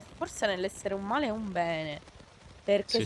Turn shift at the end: No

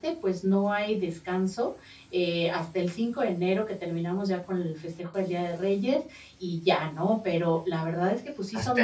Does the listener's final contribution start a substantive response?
No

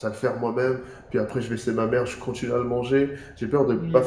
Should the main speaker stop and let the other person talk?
No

